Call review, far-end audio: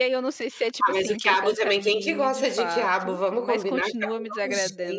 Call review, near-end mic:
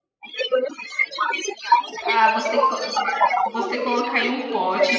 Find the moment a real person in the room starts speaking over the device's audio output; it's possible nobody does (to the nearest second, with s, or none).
2 s